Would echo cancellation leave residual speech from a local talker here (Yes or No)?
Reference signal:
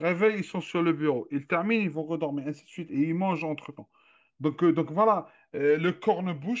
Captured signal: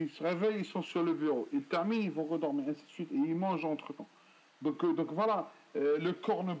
No